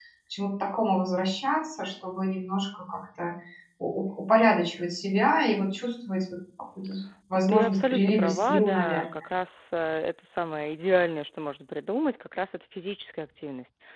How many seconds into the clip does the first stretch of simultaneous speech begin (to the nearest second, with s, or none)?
7 s